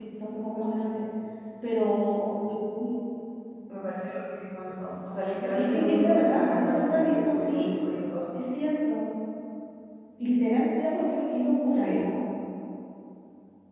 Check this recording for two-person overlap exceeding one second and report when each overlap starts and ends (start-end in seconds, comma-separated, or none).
5.5-7.7